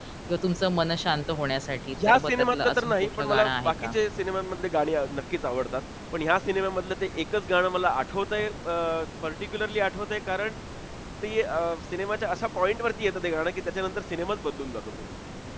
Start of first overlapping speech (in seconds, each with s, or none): 1.9 s